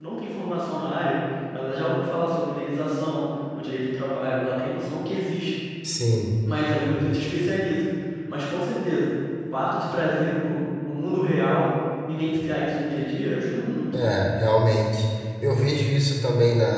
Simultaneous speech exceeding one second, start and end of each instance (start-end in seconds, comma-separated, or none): none